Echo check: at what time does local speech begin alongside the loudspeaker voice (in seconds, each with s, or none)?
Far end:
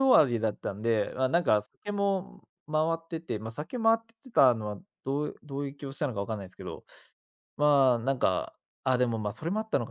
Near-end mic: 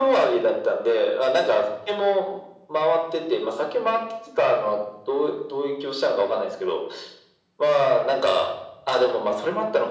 none